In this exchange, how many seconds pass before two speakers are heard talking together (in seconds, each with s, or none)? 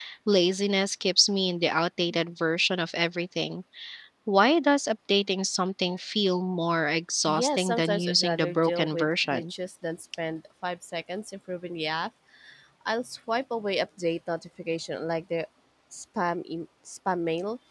7.3 s